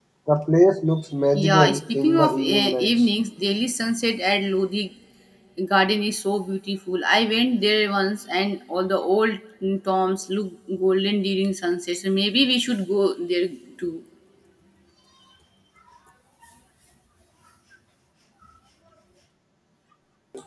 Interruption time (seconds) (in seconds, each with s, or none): 1.3 s